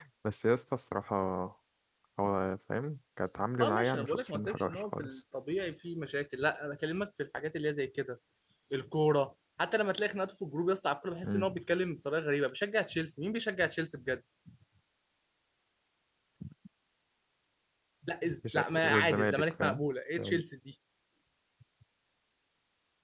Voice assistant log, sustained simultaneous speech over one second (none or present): present